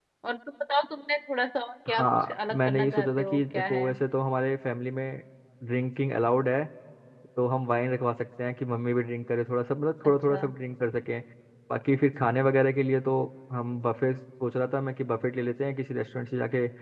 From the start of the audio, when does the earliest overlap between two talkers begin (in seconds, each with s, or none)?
1.9 s